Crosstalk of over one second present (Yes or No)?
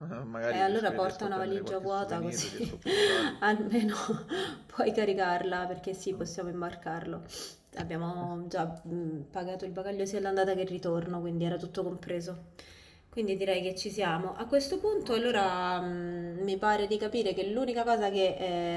Yes